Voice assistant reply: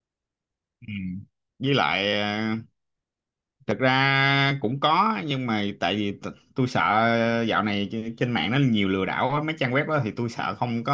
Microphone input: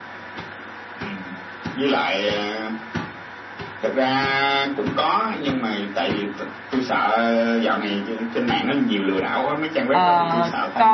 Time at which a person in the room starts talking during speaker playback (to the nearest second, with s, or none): 10 s